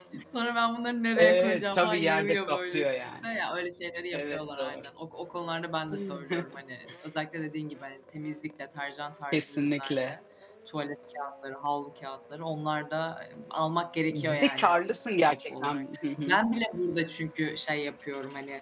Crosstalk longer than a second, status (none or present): present